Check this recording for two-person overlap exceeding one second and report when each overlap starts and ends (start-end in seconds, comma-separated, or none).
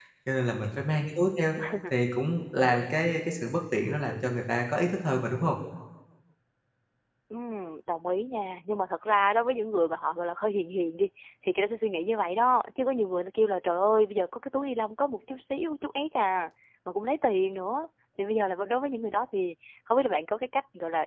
none